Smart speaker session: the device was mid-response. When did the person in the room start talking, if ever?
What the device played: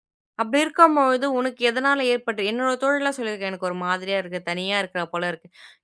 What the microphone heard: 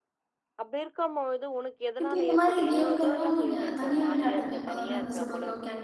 2 s

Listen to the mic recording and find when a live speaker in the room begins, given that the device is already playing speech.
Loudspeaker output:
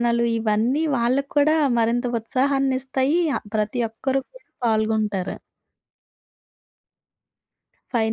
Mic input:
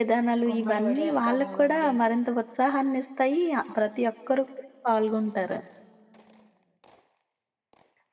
0 s

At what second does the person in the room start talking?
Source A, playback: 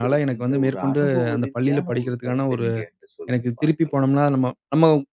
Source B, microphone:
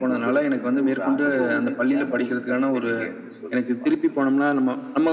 none

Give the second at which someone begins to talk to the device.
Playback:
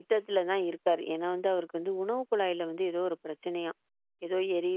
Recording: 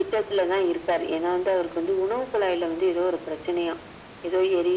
none

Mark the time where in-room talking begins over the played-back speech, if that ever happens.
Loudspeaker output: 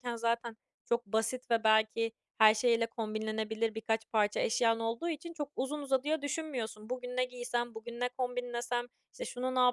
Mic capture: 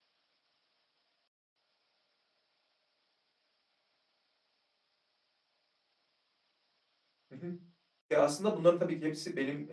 7 s

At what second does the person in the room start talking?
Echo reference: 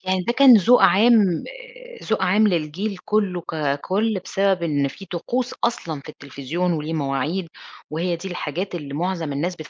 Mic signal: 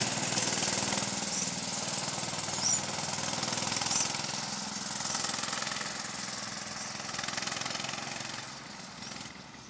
none

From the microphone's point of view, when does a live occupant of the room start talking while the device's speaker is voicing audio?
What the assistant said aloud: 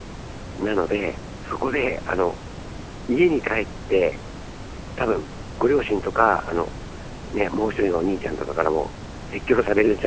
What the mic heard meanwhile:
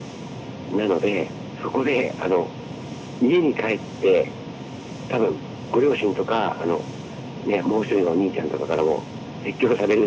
none

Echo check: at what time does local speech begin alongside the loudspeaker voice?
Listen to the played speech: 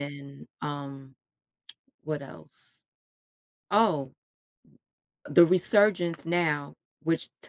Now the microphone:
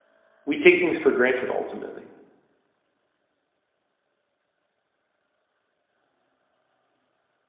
0 s

